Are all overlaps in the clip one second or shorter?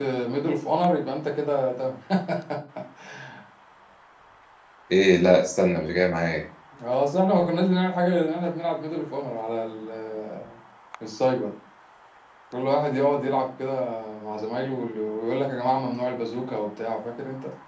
Yes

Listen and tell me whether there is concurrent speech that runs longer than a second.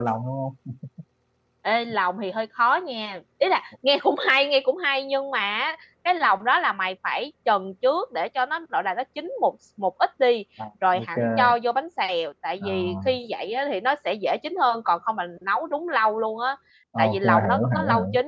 Yes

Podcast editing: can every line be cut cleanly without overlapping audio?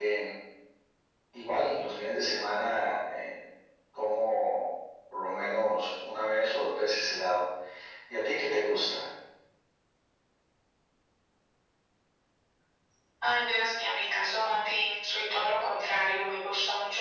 Yes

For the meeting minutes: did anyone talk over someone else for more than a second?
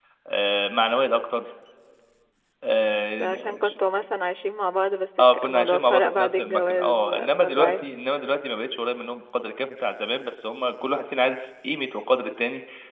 Yes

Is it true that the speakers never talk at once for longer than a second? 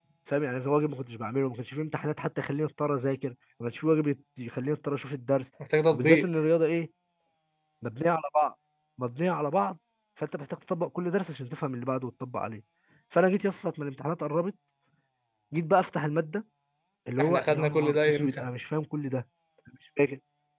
No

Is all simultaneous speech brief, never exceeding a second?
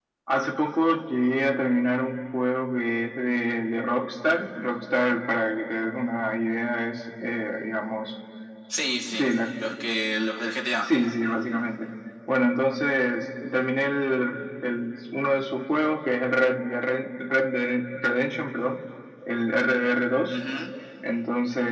Yes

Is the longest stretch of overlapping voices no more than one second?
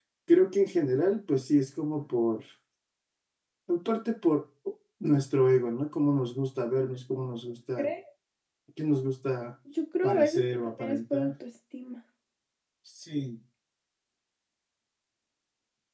No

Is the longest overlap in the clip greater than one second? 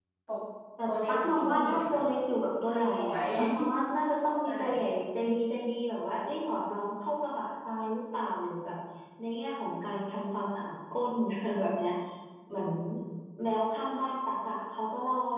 Yes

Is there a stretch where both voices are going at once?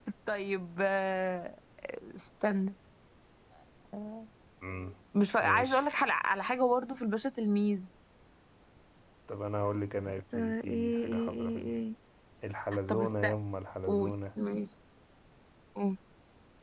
Yes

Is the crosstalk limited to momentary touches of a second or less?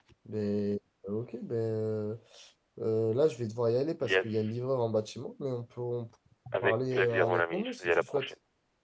No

